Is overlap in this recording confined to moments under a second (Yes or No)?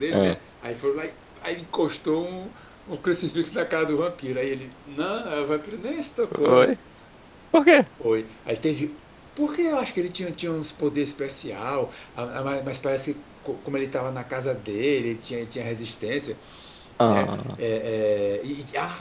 Yes